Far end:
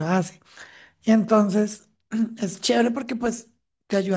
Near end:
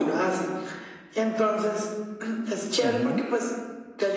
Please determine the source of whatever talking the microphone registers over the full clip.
both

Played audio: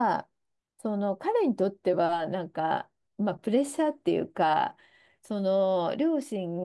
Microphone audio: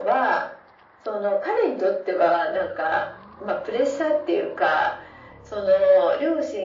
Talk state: echo only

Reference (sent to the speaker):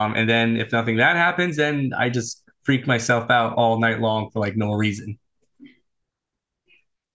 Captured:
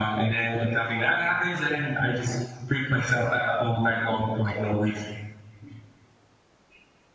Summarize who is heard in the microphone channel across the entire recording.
echo only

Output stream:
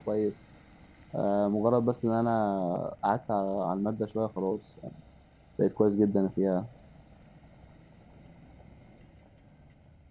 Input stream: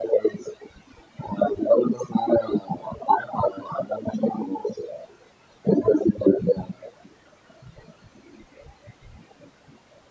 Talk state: echo only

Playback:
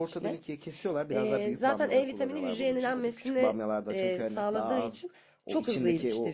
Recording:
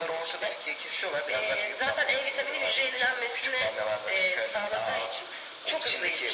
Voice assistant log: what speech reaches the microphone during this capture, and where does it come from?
echo only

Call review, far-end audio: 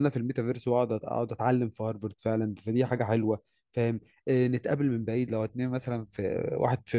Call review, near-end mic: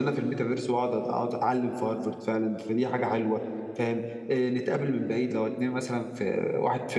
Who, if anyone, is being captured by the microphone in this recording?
echo only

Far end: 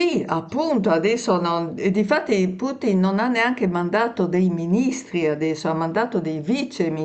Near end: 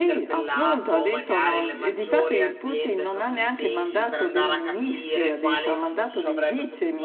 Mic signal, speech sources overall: both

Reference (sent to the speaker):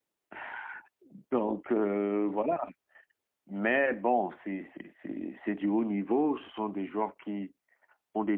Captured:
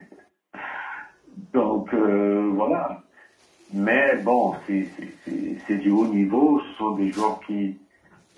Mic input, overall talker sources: echo only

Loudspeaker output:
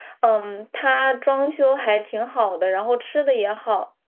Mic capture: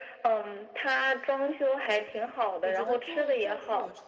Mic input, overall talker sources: both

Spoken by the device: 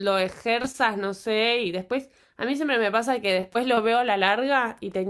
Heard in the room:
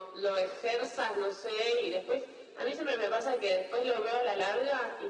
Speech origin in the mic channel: echo only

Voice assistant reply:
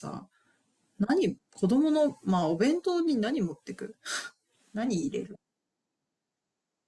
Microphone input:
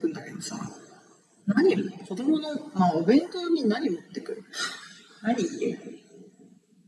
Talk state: echo only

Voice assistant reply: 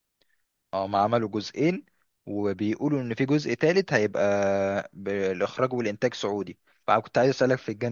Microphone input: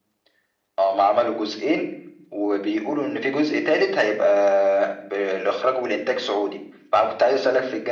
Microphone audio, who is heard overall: echo only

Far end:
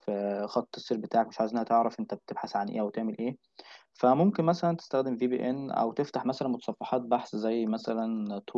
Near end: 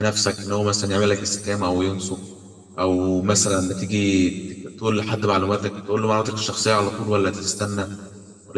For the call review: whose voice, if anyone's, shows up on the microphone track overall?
user only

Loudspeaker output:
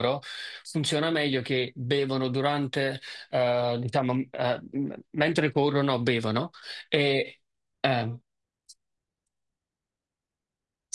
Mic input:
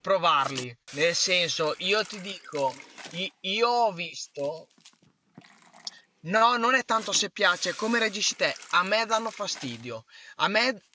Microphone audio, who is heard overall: user only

